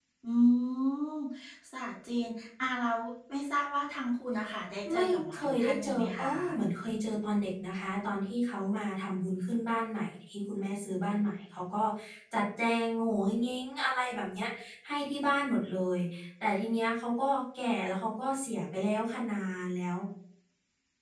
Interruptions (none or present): present